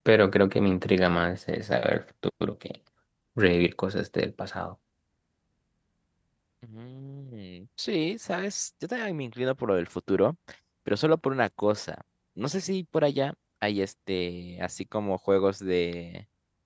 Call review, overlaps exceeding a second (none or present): none